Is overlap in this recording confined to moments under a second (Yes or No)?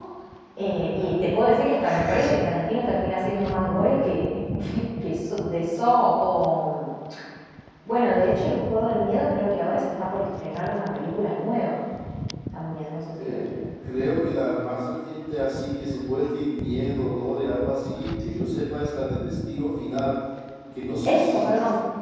Yes